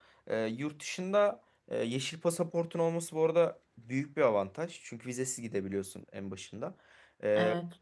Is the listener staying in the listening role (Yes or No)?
Yes